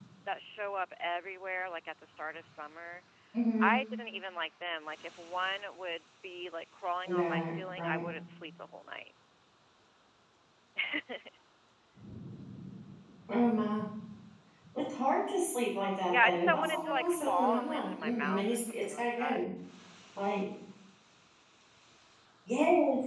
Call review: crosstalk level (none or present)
present